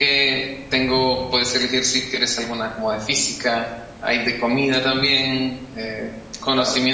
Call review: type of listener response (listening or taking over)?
listening